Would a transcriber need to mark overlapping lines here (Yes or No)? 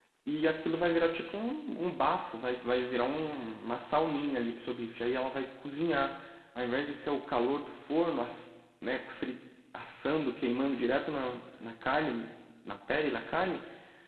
No